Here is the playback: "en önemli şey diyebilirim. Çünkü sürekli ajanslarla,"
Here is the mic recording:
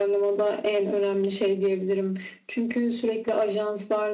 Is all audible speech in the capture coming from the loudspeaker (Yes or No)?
Yes